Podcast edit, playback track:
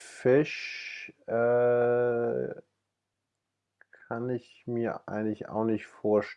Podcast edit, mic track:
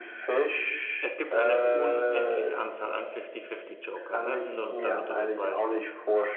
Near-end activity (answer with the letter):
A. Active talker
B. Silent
A